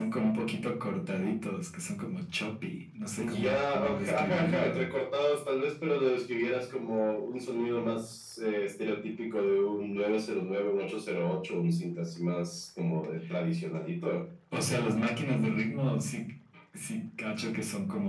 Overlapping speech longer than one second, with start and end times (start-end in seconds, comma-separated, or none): 3.2-4.9